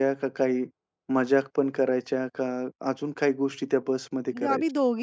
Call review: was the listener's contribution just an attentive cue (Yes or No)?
No